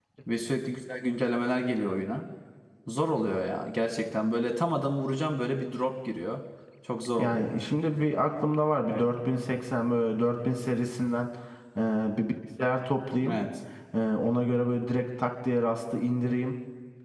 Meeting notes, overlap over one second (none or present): none